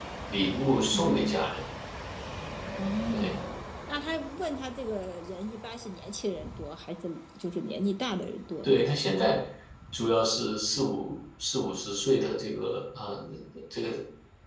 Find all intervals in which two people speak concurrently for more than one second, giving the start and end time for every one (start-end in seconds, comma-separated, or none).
none